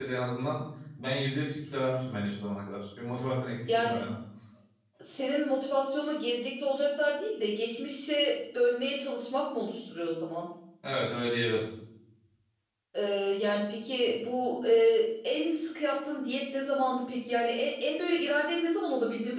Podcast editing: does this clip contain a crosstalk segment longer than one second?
No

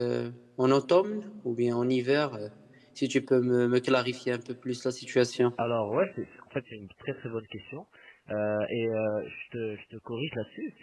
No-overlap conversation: Yes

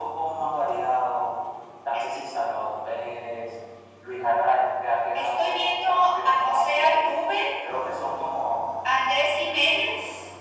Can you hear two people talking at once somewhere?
Yes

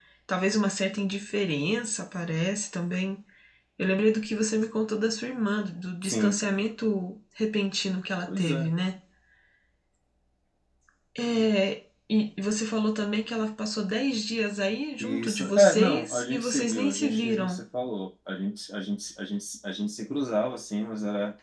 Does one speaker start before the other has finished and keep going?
Yes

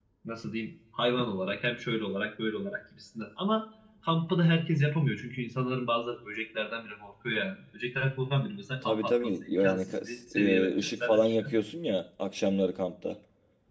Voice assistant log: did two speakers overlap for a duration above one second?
Yes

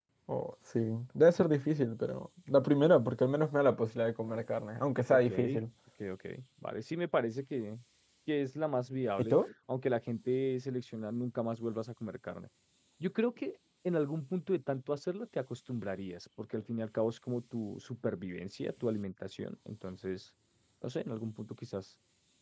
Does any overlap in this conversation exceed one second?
No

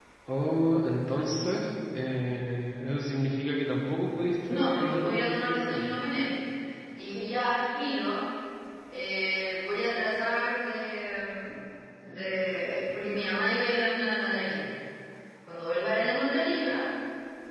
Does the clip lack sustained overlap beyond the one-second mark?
No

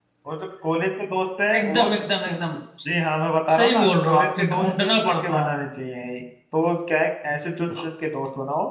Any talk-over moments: Yes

